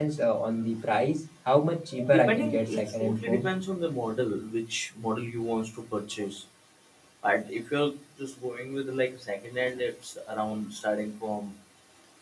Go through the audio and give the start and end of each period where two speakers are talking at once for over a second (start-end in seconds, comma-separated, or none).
2.1-3.5